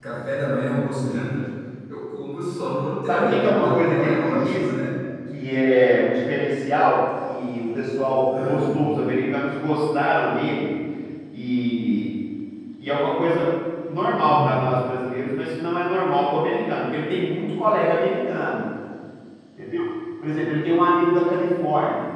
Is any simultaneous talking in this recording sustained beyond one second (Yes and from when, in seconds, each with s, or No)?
Yes, from 3.1 s